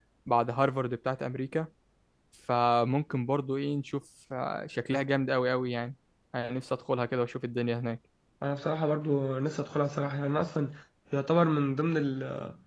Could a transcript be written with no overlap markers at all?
Yes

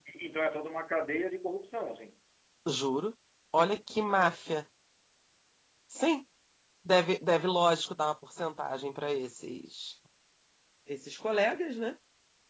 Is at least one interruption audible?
No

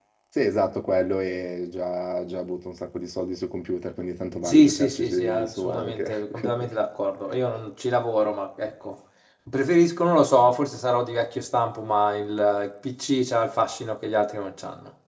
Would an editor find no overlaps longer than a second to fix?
No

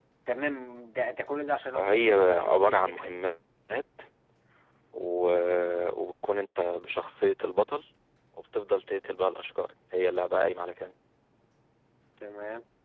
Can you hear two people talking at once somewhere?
Yes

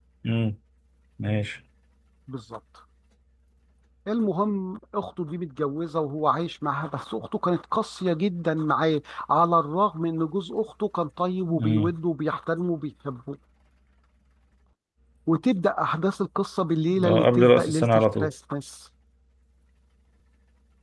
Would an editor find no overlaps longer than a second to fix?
No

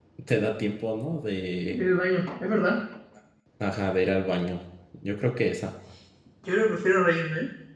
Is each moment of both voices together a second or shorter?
Yes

